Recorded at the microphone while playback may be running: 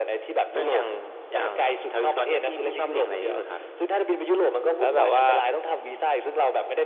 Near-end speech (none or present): present